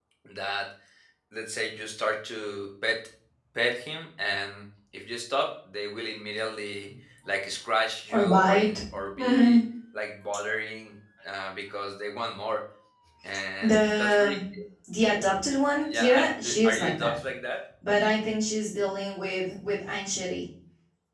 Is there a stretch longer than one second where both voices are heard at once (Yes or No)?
Yes